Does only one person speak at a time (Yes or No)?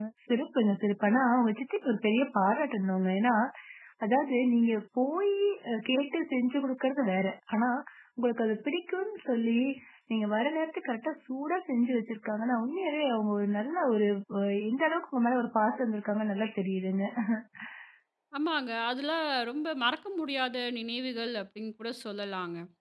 Yes